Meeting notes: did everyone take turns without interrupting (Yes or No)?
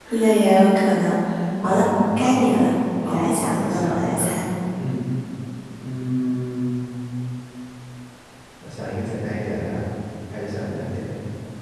No